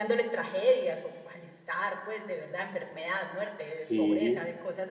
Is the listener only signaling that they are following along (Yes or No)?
Yes